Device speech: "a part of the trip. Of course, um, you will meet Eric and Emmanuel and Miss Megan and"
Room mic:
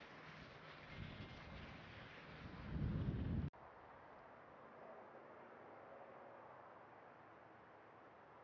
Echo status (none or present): none